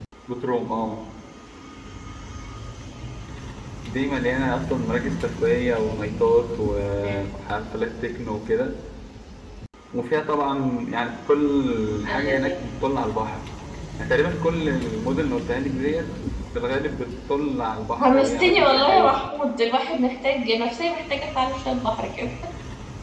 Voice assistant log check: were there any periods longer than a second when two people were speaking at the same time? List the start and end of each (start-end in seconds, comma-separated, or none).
18.0-19.2